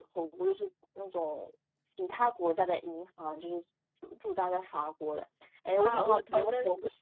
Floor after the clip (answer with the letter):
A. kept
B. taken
B